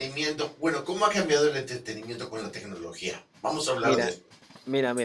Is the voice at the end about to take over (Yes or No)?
Yes